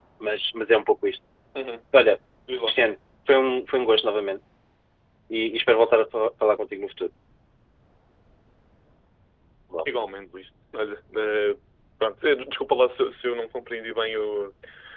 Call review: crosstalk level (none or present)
none